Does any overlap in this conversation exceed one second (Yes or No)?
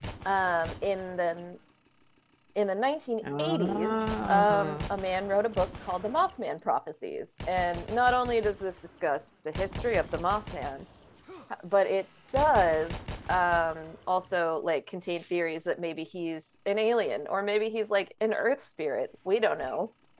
Yes